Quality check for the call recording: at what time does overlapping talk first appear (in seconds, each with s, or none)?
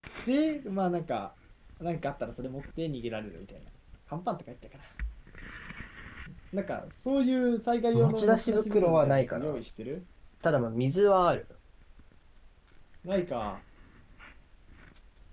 7.9 s